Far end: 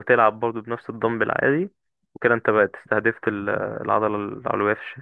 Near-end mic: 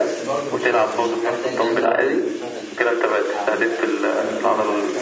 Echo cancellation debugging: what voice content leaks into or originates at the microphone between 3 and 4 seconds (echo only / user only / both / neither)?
both